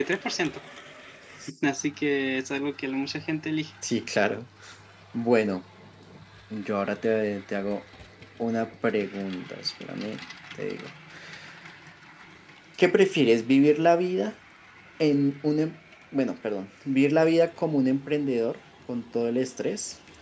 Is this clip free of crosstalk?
Yes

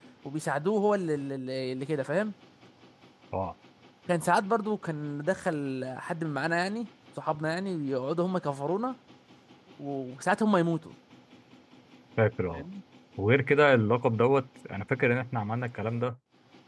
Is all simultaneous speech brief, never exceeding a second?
Yes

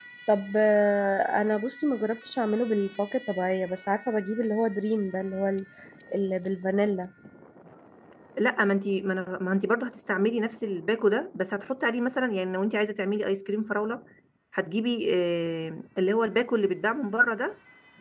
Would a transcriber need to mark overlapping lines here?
No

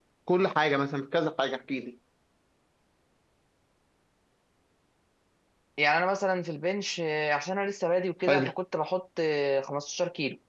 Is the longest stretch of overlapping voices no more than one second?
Yes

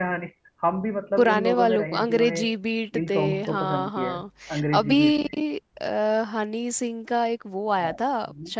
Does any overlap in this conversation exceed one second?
Yes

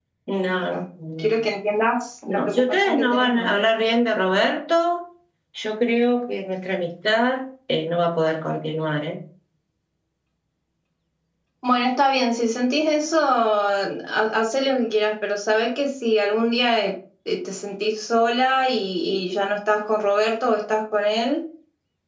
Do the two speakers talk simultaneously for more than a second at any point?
Yes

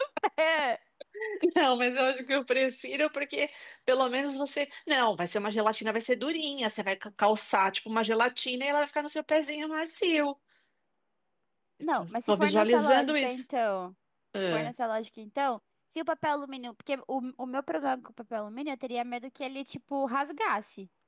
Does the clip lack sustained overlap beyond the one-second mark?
No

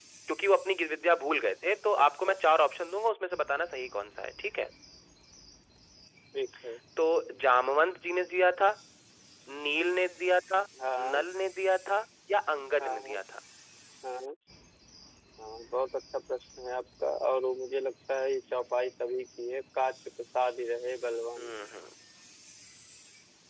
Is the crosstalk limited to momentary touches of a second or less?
Yes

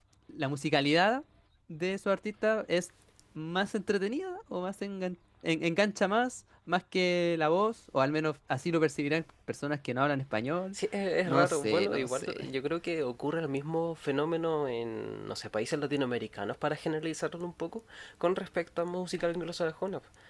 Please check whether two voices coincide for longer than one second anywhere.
Yes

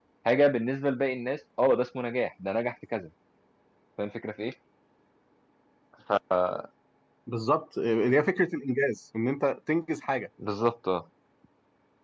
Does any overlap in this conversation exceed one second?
No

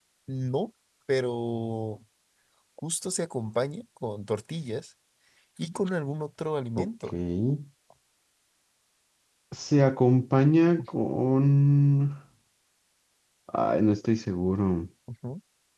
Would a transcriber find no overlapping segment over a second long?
Yes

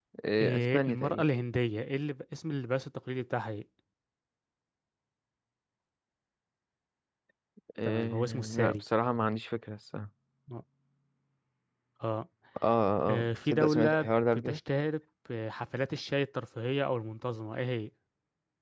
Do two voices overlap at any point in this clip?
Yes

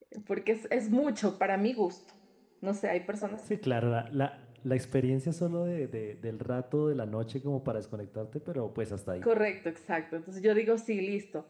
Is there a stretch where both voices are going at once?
No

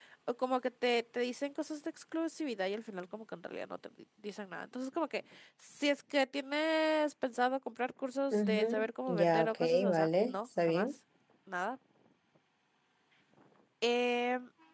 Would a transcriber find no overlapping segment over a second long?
No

